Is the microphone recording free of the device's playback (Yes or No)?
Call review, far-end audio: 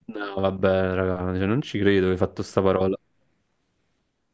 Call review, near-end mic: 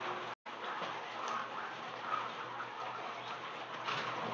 Yes